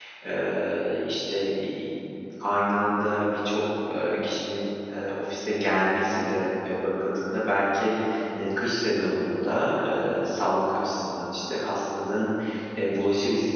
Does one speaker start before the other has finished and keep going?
No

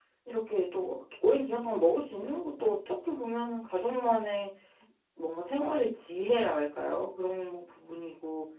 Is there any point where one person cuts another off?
No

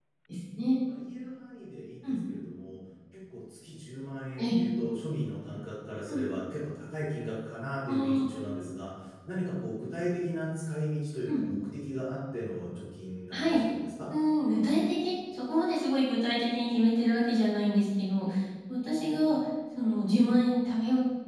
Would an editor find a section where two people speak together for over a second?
No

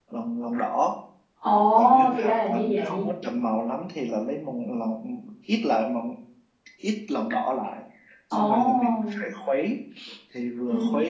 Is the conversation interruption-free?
No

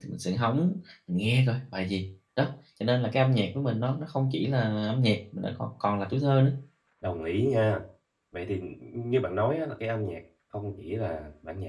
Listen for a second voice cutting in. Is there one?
No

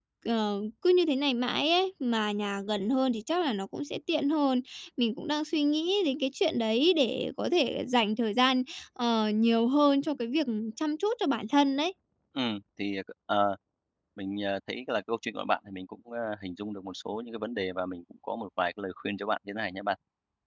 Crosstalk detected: No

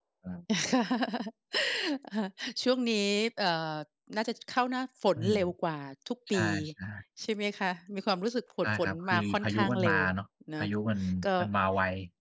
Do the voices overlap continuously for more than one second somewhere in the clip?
Yes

